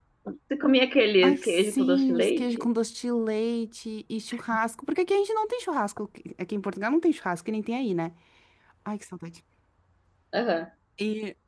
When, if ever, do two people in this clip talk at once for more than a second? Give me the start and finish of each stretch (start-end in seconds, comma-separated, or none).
1.2-2.6